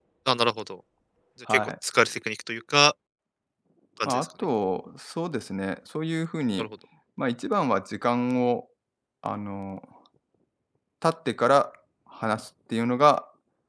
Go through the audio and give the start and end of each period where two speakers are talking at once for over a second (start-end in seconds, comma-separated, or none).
none